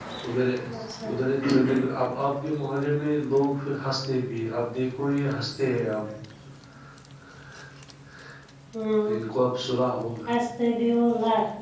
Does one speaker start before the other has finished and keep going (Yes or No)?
No